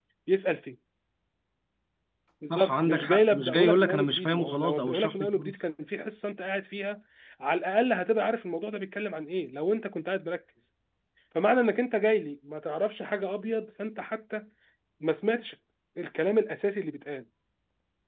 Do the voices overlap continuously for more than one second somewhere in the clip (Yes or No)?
Yes